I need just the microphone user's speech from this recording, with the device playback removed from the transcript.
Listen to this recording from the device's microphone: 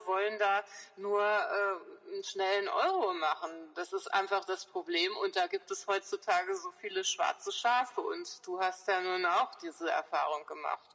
none

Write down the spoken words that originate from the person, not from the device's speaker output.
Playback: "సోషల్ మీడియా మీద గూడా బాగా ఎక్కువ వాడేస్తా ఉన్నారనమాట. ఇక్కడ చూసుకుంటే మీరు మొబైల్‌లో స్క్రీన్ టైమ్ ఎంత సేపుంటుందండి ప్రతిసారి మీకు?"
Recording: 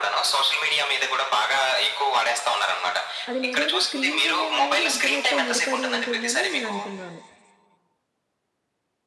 అది మేజర్‌గా స్క్రీన్ సమయం అనేది ఇంటర్నెట్‌తో ముడిపడి ఉంటుందని నేనంటున్నాను.

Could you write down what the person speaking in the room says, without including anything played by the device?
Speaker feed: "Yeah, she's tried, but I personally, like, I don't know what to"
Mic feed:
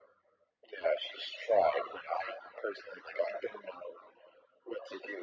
none

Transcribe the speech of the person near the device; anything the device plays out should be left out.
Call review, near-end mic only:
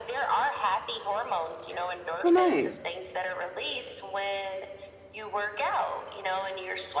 Oh, nice.

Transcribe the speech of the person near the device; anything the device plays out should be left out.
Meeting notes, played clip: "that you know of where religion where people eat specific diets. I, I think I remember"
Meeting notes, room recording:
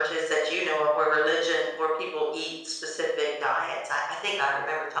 none

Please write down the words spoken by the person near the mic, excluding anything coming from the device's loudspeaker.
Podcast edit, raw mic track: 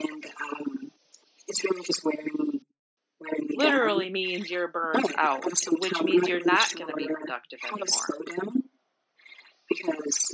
literally means you're burnt out, which means you're not going to be productive anymore.

